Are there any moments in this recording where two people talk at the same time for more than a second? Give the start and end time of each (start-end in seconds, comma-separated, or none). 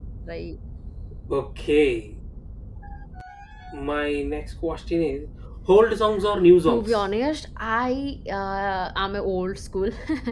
none